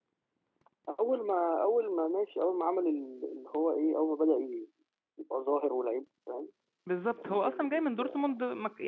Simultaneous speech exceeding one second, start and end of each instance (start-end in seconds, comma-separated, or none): 7.1-8.4